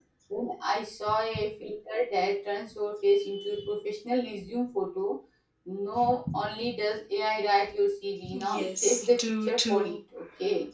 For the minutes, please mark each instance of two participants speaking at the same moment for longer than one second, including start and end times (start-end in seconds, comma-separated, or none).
8.4-10.0